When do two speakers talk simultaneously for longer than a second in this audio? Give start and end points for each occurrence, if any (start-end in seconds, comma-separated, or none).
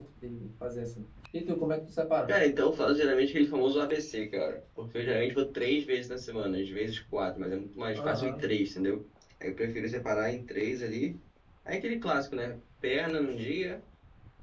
none